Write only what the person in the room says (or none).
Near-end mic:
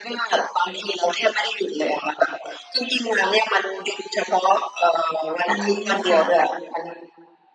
อืมค่ะ